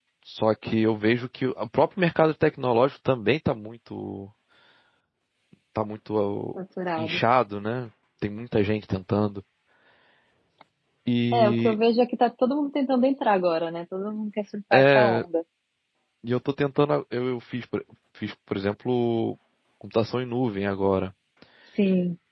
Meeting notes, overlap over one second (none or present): none